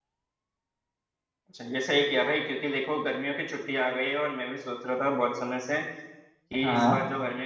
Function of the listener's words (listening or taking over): listening